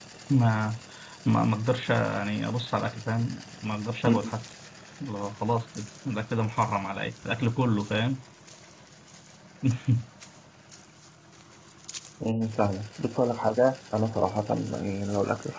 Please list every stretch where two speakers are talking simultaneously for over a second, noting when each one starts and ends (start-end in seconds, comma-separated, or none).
none